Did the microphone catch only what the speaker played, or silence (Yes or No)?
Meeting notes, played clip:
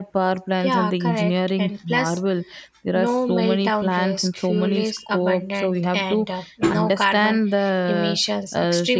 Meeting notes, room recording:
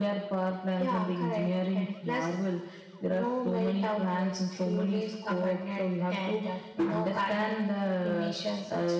Yes